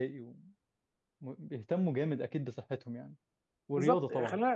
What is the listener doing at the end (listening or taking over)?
taking over